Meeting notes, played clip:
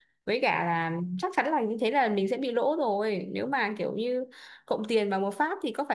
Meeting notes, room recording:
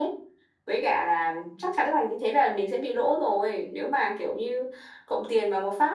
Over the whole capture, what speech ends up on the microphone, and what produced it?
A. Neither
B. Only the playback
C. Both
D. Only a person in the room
B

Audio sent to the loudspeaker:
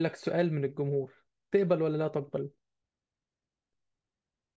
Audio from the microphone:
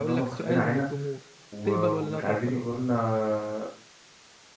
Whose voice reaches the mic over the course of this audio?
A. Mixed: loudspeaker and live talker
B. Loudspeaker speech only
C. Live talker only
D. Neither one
A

